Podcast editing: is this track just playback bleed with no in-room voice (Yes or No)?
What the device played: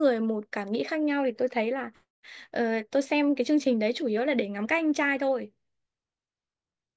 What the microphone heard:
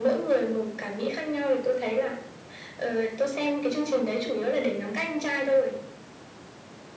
Yes